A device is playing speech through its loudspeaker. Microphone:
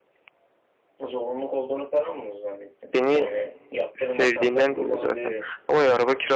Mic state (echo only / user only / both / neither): both